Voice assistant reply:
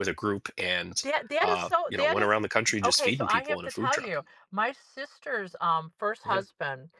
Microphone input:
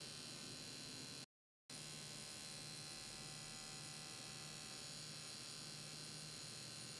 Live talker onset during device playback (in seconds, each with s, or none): none